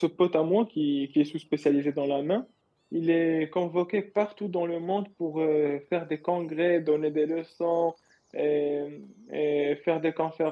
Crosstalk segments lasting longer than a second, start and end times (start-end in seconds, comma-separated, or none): none